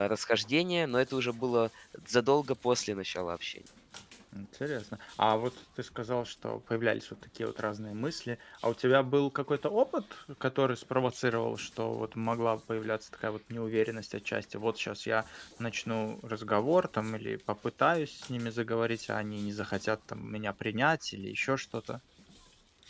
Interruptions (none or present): none